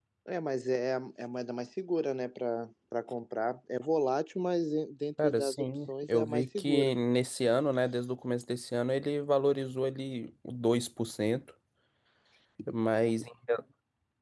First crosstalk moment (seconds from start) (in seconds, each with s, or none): 5.2 s